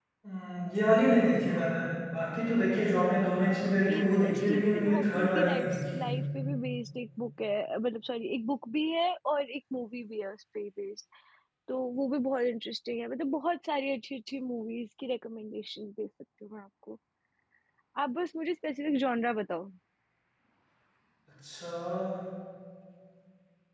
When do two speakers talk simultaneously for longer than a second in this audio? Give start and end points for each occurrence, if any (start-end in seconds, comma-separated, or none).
3.9-6.0